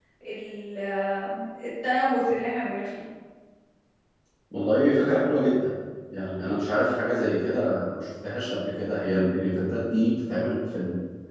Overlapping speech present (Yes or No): No